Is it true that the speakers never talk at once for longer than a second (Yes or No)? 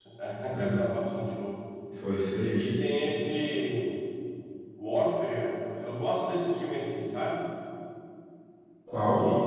Yes